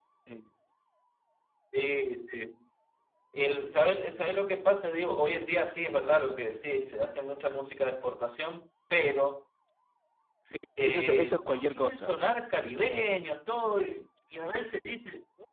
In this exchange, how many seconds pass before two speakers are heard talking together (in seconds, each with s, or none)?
10.8 s